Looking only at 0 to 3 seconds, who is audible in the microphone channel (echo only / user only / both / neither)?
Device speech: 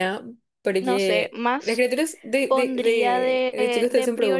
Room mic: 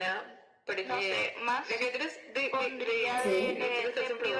echo only